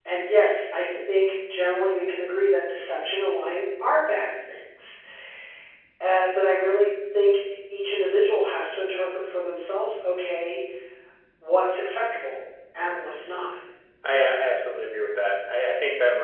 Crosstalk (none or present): none